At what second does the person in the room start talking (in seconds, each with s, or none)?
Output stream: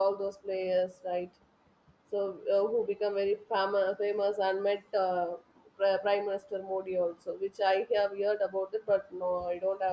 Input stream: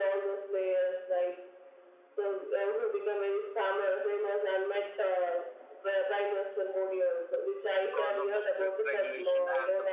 7.8 s